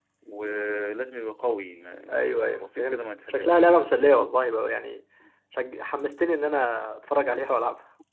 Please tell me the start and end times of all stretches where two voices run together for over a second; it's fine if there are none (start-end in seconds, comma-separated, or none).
2.1-3.6